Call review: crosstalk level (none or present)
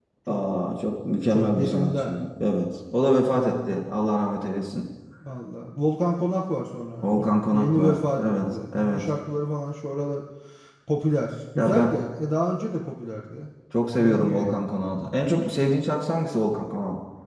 present